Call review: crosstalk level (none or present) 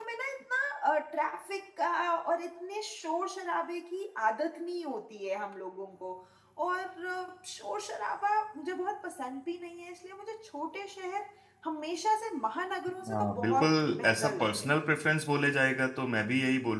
present